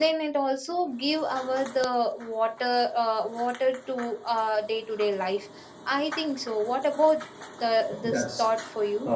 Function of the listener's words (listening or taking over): taking over